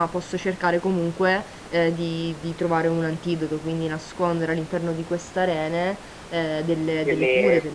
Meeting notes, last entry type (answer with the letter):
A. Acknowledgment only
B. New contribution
B